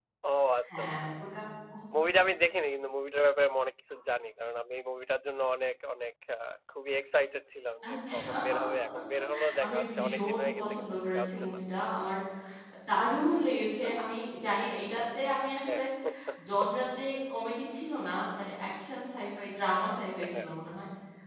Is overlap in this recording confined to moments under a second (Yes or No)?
No